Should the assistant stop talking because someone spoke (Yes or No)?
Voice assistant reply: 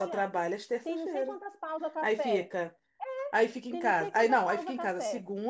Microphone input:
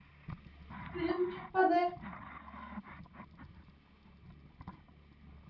Yes